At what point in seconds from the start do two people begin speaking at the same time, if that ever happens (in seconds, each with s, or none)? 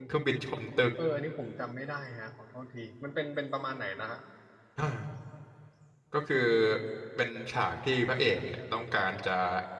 none